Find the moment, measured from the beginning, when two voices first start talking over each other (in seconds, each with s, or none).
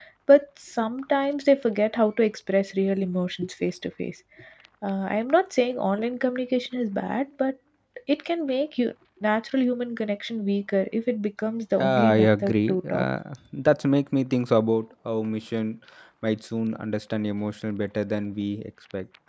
11.8 s